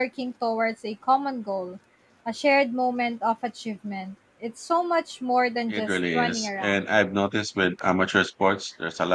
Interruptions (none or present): present